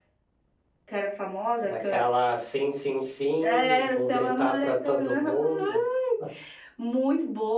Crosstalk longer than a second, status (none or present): present